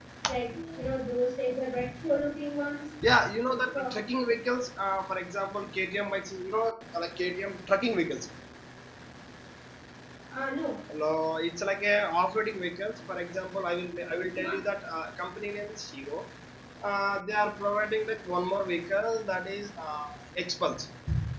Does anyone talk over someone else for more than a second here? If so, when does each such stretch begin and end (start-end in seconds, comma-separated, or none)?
none